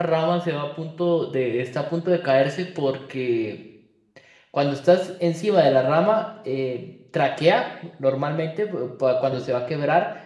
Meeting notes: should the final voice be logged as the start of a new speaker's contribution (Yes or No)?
No